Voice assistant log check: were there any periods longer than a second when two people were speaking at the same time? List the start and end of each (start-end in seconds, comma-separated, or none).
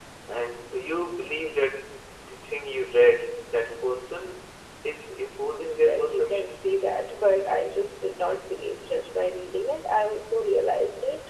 5.5-6.7